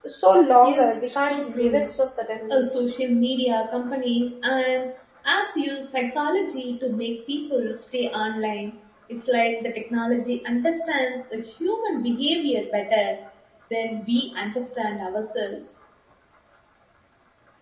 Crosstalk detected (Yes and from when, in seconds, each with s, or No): Yes, from 0.6 s